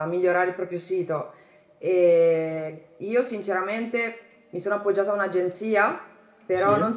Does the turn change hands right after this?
No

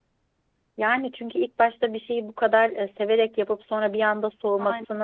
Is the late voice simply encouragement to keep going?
Yes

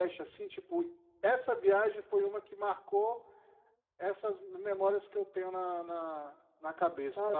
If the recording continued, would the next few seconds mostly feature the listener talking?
Yes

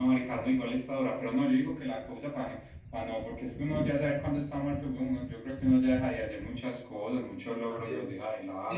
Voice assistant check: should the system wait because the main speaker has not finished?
No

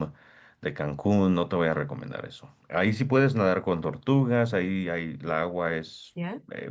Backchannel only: Yes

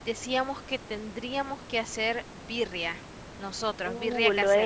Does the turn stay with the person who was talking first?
No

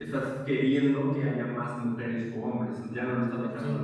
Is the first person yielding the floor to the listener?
Yes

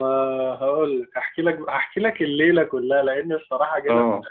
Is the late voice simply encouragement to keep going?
Yes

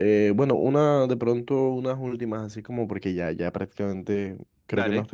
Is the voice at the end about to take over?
No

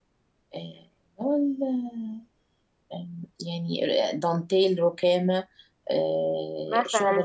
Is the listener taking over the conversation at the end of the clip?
Yes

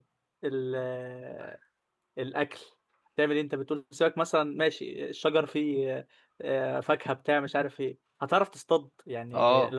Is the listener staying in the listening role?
No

